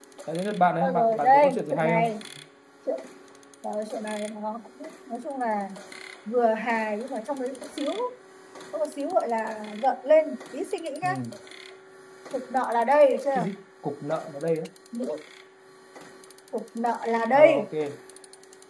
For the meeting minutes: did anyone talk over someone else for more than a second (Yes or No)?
Yes